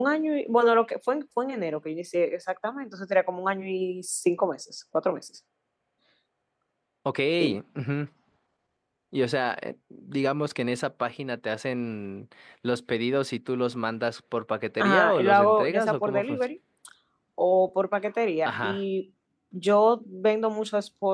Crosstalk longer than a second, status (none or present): present